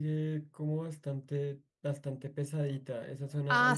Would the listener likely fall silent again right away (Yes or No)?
No